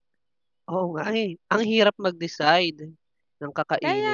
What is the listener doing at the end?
taking over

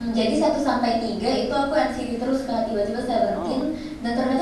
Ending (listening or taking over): listening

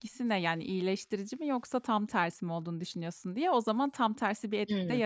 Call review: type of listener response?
taking over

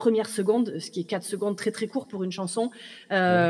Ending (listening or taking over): listening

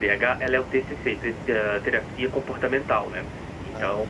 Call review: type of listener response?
listening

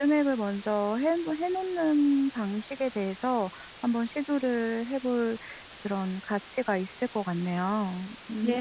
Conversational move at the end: taking over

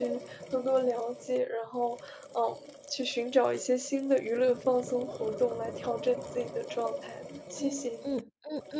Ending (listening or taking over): taking over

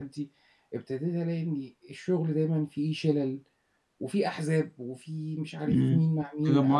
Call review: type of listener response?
taking over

